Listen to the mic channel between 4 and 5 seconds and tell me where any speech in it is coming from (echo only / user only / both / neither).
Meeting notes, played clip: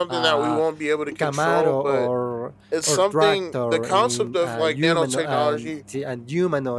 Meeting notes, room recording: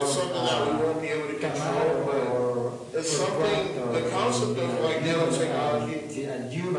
both